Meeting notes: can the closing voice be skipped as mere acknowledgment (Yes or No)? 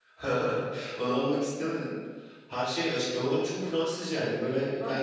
No